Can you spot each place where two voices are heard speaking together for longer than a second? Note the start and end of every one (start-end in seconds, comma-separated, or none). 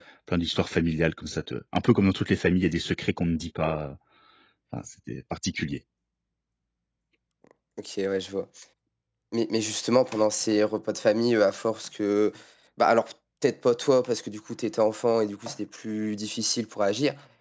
none